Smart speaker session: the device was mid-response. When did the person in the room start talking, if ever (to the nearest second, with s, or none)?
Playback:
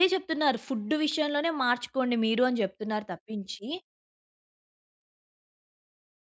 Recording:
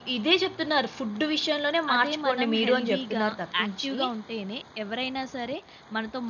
2 s